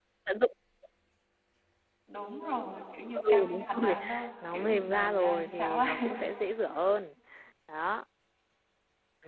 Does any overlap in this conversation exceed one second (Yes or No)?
Yes